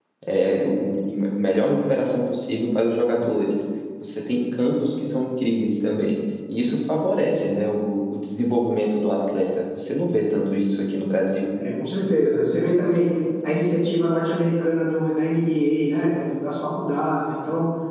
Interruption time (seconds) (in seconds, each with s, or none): none